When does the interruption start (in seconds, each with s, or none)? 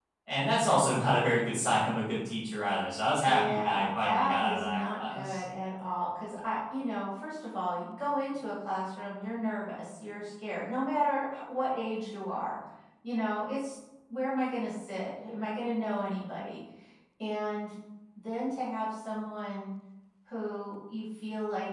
3.2 s